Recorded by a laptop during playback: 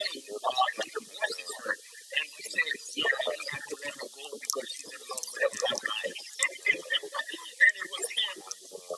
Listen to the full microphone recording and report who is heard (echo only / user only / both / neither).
echo only